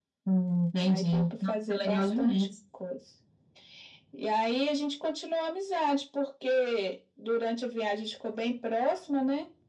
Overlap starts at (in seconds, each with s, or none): 0.8 s